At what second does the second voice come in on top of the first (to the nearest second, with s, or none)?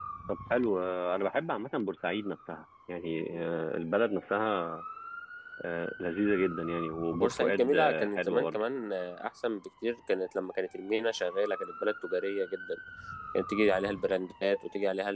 7 s